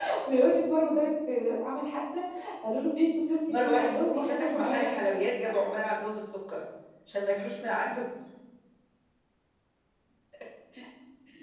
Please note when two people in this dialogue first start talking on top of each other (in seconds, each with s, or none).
3.5 s